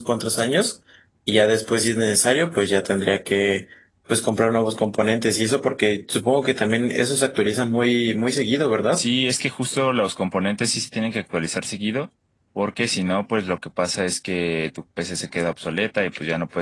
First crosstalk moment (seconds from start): none

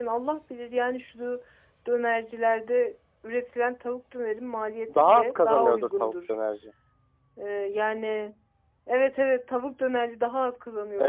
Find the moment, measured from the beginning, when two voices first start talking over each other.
4.9 s

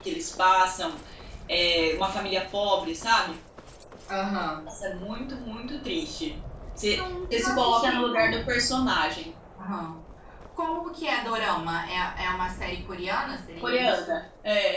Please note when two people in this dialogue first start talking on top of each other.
6.9 s

